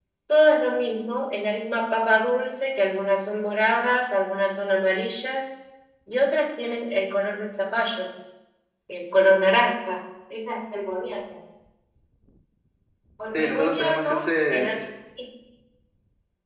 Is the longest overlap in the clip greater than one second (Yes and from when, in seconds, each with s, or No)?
Yes, from 13.3 s